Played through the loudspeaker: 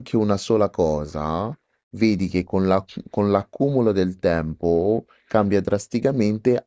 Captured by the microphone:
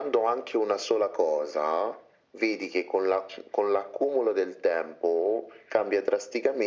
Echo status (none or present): present